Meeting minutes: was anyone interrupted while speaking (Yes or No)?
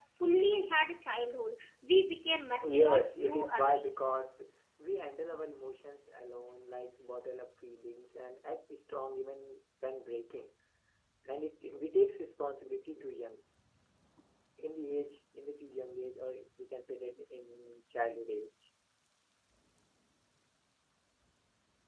Yes